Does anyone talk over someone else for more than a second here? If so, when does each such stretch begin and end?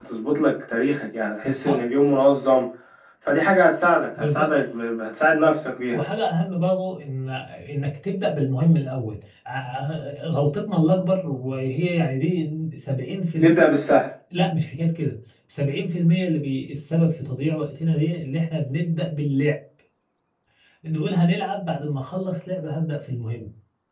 none

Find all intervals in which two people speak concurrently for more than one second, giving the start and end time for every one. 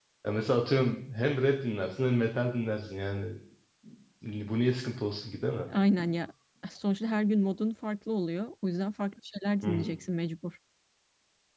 none

